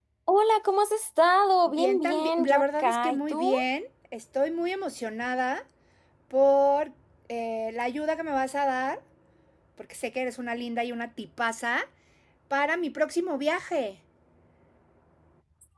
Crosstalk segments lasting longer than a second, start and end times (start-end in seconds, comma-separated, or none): 1.7-3.5